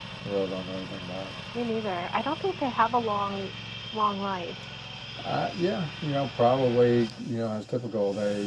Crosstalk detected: No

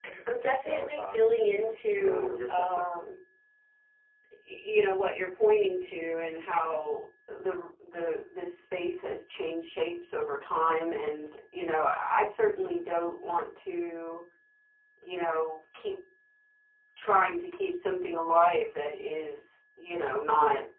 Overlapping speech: Yes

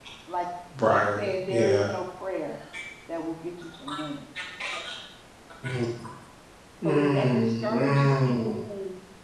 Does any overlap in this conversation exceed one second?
Yes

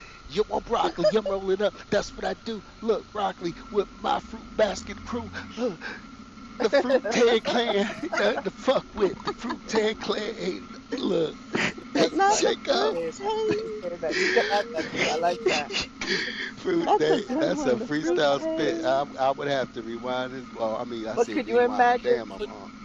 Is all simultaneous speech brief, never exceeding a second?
No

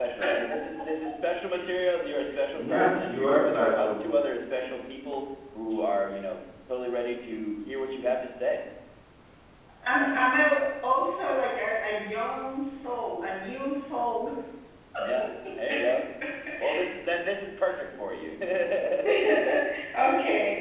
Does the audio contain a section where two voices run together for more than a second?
Yes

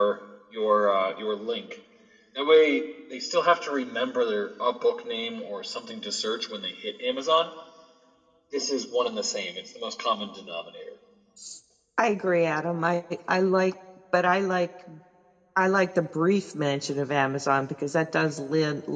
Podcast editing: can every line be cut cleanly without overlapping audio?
Yes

